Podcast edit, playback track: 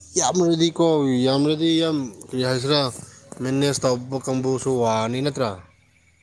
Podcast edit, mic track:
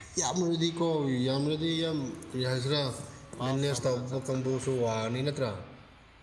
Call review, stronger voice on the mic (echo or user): echo